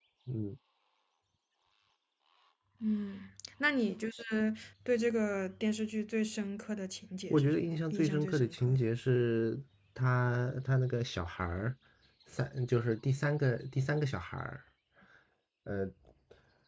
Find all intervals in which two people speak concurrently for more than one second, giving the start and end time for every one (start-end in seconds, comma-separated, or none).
7.3-8.8